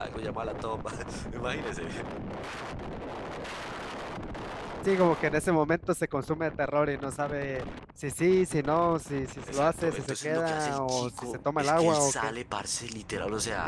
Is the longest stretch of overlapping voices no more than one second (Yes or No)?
No